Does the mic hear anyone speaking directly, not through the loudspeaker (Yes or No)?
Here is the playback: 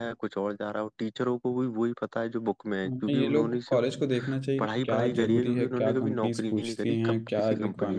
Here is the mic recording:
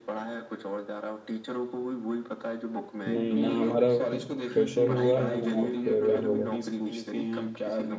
Yes